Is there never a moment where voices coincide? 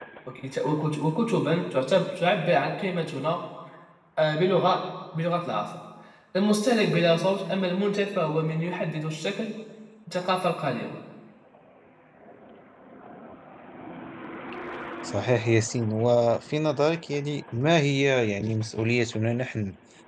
Yes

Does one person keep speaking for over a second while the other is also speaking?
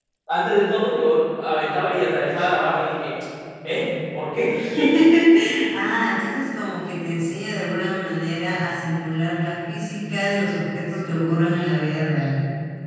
No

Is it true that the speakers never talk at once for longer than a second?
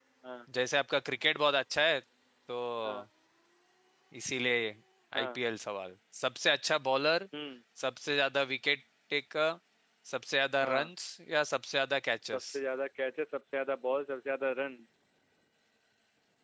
Yes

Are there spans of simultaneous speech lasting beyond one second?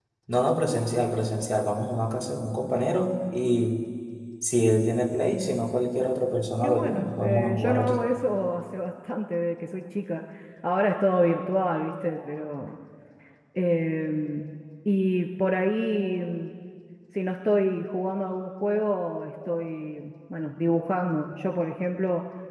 Yes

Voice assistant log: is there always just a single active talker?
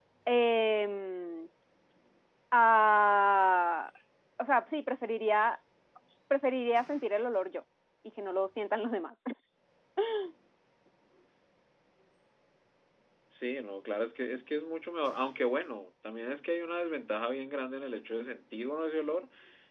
Yes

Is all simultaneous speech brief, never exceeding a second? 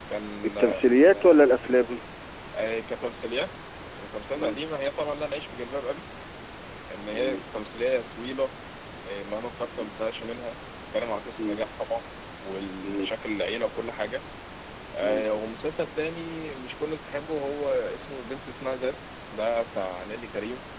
Yes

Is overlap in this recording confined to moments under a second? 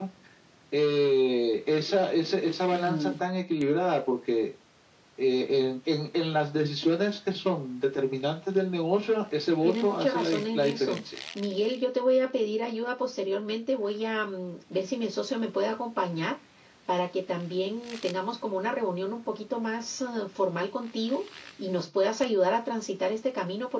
No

